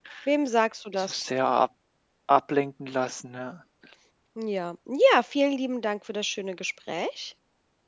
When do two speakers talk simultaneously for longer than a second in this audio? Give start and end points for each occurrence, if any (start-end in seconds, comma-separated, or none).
none